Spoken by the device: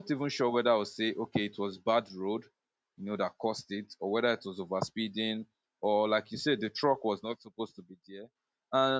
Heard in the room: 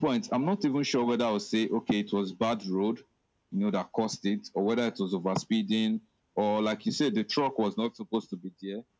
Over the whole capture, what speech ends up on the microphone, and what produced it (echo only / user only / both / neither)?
echo only